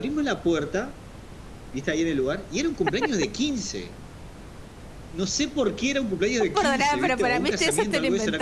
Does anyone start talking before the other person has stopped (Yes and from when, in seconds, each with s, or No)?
Yes, from 6.5 s